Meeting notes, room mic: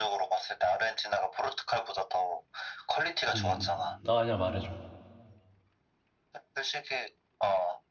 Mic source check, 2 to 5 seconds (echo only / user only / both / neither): both